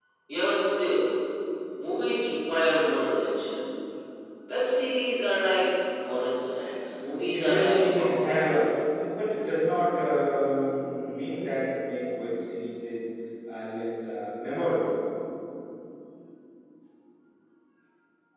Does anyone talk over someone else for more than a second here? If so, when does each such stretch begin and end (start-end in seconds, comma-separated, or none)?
7.3-8.6